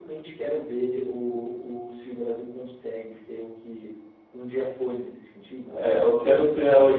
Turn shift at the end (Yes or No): Yes